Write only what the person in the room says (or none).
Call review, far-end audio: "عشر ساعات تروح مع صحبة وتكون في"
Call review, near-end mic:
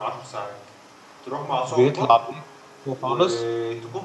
بيطلع بيك خالص